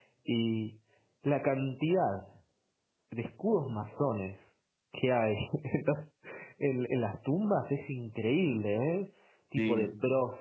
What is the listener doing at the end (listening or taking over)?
listening